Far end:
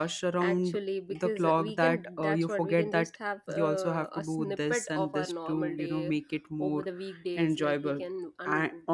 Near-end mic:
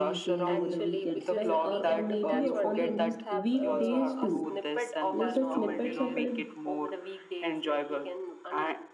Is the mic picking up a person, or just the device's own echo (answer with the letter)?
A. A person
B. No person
A